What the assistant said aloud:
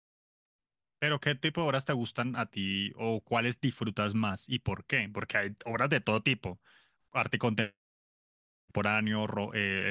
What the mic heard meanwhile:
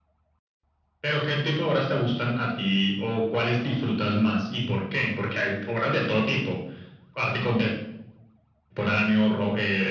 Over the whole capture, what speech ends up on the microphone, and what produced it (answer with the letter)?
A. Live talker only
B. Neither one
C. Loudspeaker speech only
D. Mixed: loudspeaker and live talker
C